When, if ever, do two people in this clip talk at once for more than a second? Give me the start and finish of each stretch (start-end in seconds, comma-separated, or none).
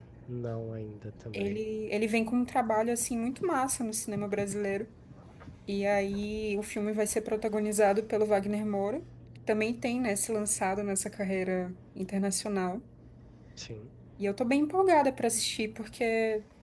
none